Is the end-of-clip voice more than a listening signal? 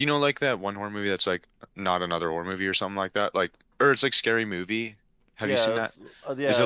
Yes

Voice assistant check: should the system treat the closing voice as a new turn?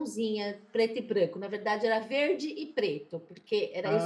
Yes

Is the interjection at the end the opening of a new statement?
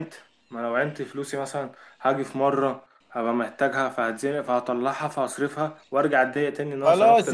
Yes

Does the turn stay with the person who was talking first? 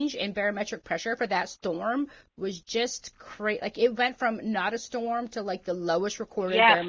No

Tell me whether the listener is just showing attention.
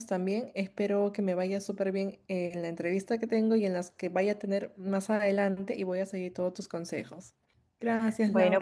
No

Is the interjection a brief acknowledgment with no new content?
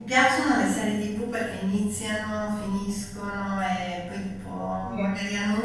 Yes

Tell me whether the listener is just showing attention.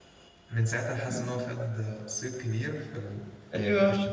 Yes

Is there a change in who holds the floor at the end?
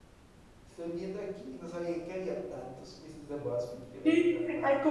Yes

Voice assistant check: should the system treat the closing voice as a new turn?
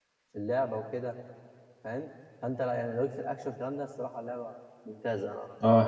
Yes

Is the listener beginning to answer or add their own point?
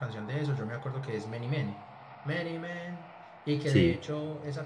No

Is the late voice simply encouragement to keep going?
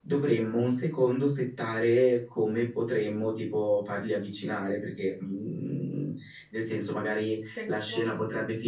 Yes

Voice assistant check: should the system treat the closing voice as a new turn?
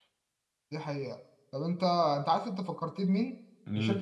No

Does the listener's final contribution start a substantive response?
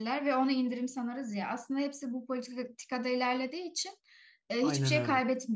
No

